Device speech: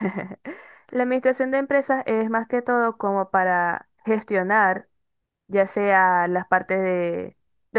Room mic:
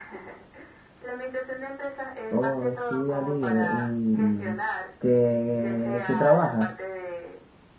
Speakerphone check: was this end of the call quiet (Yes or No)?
No